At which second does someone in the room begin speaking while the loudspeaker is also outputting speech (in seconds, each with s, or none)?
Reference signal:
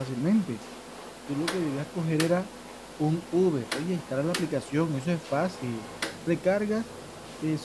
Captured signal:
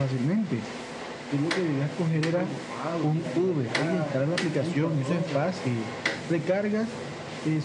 2.1 s